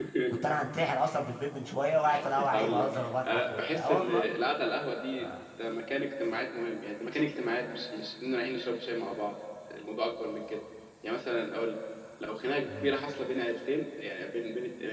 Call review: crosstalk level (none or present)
present